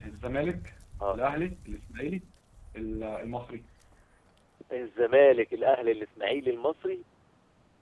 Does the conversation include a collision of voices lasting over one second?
No

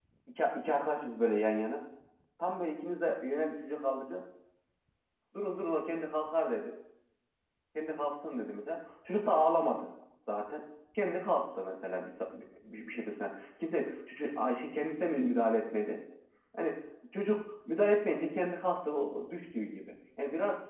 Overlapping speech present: No

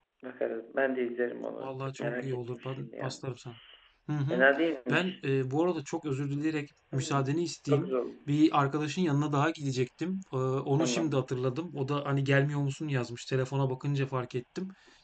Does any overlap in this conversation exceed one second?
Yes, from 1.6 s

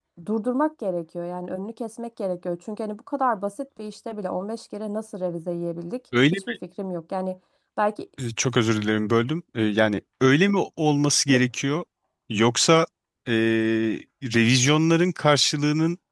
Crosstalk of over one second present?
No

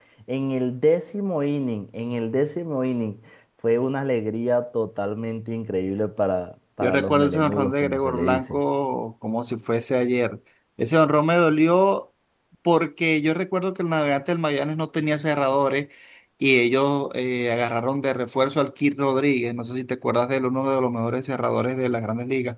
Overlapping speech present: Yes, from 6.8 s

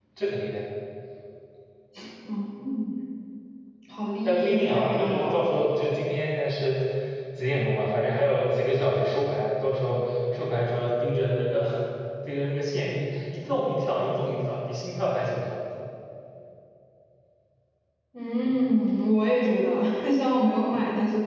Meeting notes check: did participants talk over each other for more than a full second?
Yes, from 4.2 s

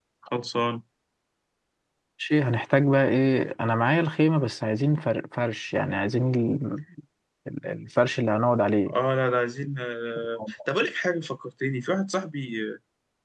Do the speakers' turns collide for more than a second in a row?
No

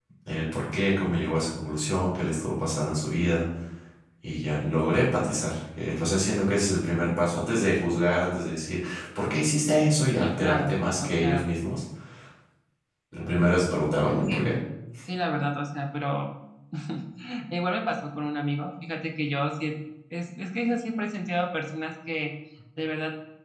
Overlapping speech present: Yes, from 10.2 s

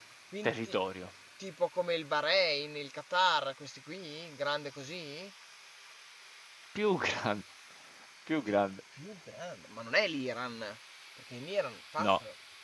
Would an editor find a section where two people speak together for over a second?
No

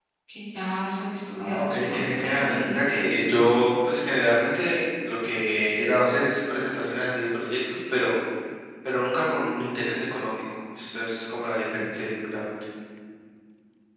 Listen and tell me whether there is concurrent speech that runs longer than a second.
Yes, from 1.4 s

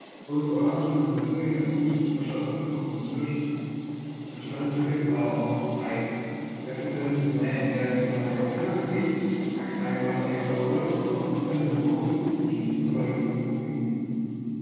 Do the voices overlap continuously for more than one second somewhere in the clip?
No

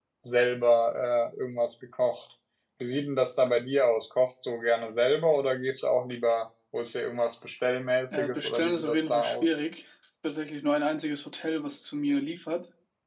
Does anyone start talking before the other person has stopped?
Yes, from 8.1 s

